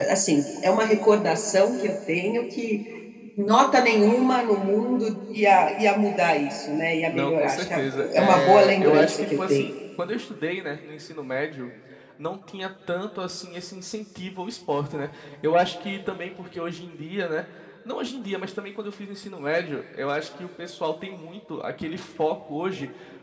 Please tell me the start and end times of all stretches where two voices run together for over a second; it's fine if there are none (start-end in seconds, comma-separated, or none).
7.1-9.7